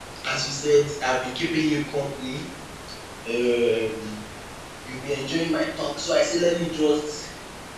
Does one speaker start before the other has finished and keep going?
No

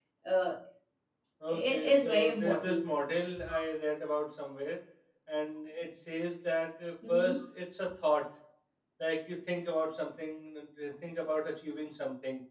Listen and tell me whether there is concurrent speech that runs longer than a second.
Yes, from 1.5 s

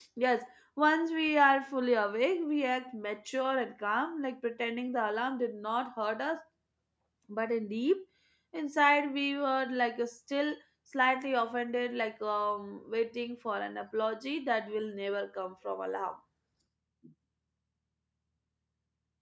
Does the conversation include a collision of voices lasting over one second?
No

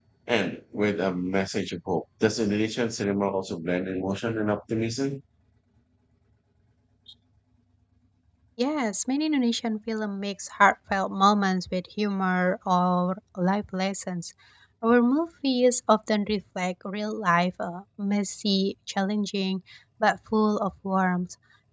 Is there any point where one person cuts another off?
No

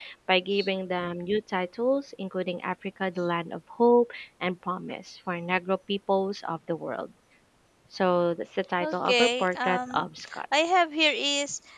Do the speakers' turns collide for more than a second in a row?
Yes, from 8.8 s

